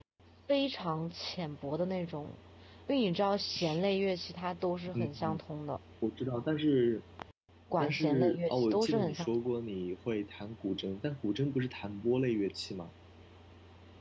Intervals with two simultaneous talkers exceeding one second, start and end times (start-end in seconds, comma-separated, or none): 7.8-9.3